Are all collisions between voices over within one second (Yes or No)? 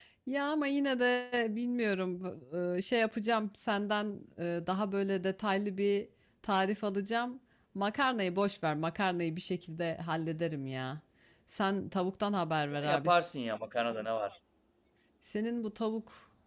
Yes